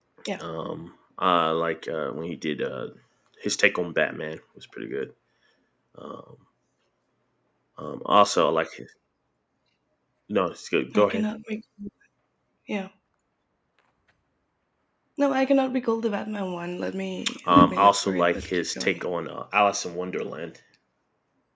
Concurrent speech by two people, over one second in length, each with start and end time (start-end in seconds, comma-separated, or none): 17.5-19.0